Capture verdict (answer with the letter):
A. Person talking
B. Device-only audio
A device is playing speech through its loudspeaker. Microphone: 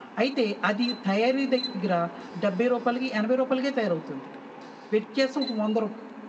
B